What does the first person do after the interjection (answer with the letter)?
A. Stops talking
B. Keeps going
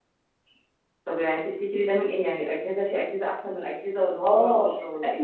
A